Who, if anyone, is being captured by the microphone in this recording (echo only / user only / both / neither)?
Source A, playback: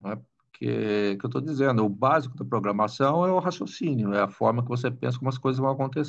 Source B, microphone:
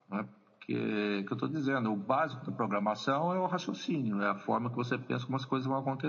echo only